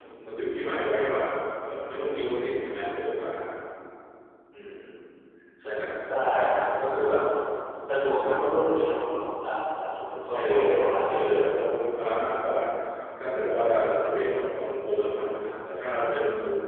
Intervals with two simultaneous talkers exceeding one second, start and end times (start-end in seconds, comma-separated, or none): 10.3-11.6